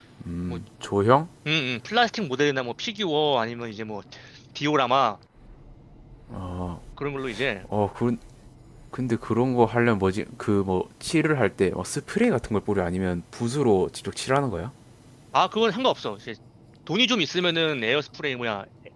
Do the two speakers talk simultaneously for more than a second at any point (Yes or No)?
No